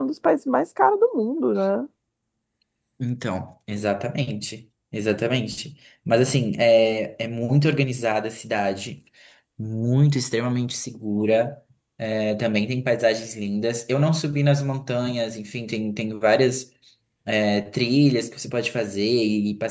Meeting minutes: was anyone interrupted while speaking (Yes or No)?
No